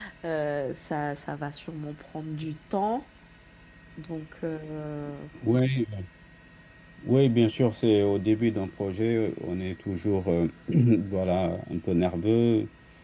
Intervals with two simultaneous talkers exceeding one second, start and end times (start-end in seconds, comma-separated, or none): none